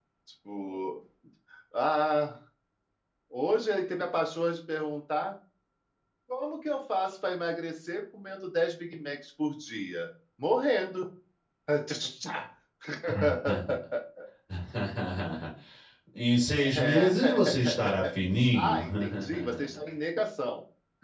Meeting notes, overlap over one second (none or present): present